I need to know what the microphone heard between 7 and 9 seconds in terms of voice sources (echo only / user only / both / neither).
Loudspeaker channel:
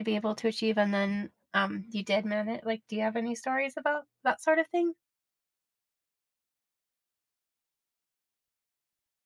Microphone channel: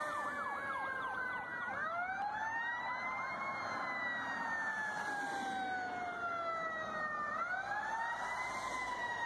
neither